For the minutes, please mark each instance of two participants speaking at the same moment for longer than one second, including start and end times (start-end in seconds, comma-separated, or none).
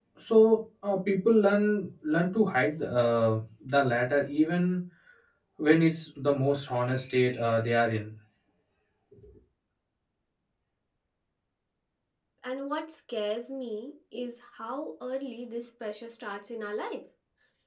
none